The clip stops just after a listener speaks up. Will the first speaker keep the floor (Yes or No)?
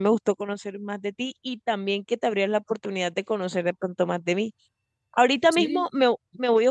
Yes